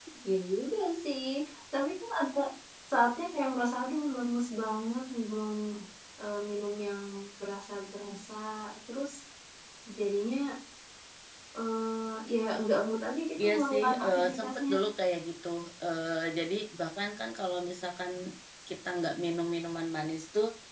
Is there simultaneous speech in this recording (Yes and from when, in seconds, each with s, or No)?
Yes, from 13.4 s